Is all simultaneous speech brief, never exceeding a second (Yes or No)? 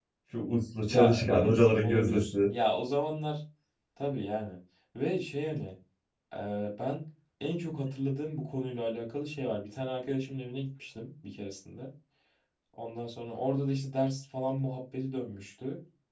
No